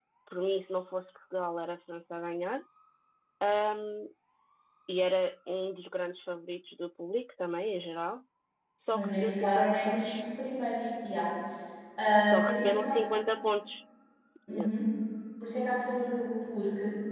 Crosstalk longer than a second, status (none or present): present